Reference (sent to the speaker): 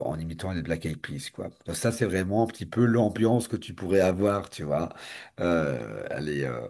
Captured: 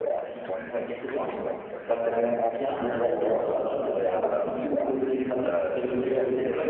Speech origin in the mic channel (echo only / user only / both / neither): both